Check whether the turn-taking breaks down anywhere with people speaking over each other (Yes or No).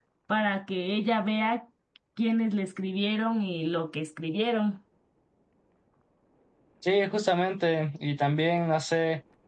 No